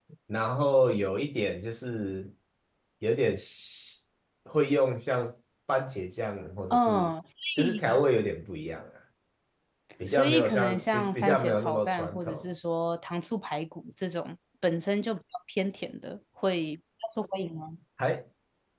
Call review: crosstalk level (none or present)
present